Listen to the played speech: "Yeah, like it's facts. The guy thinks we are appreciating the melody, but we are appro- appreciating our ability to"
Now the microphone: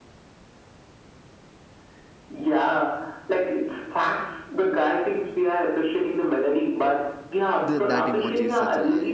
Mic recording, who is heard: both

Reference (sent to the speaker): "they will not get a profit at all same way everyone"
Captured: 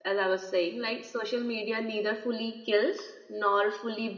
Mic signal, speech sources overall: user only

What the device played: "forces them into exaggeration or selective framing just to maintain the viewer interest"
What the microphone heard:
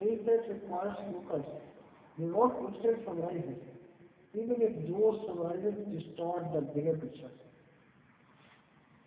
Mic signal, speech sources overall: user only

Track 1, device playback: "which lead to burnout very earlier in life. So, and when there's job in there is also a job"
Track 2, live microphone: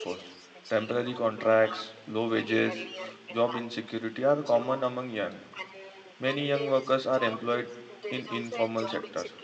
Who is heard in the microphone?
both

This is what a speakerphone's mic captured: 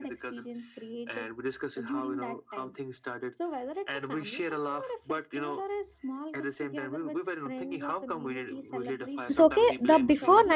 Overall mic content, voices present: both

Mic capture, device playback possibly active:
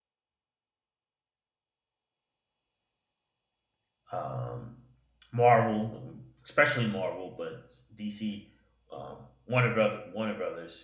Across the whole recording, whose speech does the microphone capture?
user only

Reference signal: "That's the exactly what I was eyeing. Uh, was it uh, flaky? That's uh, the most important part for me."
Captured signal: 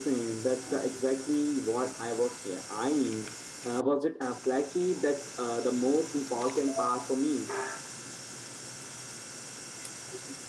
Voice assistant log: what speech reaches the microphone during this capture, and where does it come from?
echo only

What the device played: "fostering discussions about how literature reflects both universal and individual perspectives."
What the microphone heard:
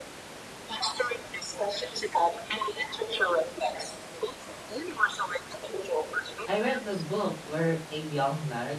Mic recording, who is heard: both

